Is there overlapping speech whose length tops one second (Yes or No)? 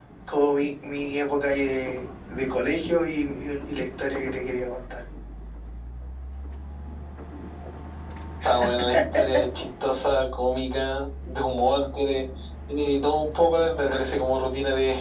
No